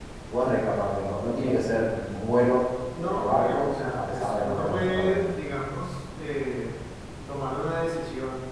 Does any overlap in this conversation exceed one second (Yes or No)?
Yes